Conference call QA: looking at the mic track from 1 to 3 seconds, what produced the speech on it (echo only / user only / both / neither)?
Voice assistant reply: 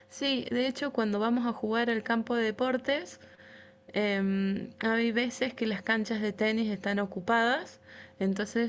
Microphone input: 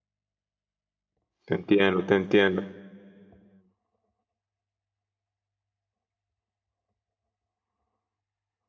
user only